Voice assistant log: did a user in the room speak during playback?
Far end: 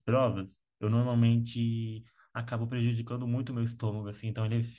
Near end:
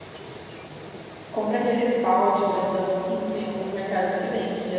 Yes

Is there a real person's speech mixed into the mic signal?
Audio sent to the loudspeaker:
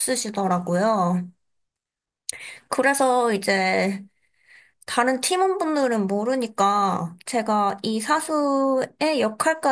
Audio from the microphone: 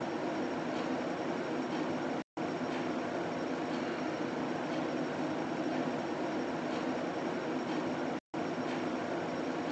No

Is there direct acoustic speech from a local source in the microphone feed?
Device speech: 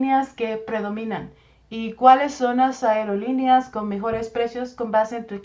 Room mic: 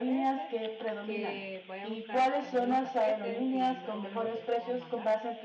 Yes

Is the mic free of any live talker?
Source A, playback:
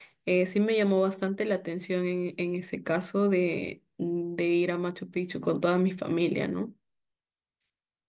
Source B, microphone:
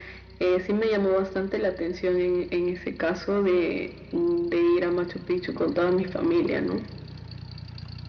Yes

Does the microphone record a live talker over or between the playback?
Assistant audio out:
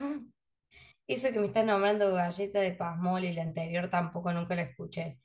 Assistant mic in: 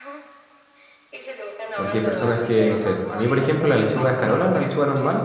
Yes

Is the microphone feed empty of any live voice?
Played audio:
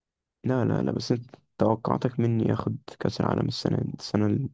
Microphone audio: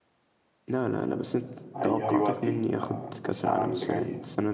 No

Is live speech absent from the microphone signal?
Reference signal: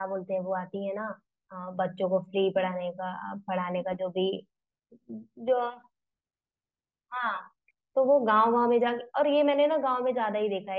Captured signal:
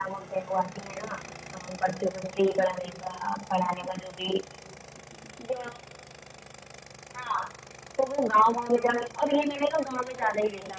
Yes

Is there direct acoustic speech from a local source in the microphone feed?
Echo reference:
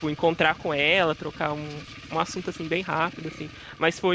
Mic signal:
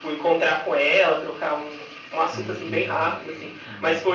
Yes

